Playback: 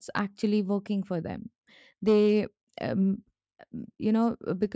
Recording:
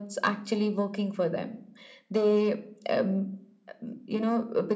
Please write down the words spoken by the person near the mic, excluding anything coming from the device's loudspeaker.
none

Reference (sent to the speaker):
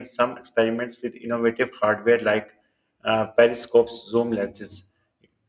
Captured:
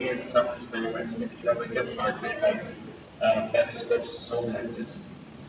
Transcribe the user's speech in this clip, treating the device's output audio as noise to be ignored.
none

